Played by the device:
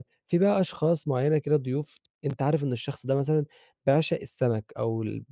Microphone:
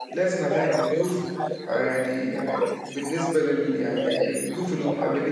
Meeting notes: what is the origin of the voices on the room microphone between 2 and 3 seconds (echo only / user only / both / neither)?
both